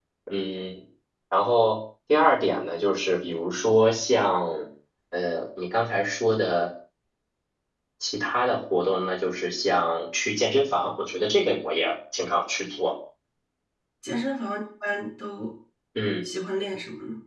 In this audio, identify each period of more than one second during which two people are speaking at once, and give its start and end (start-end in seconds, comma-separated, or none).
none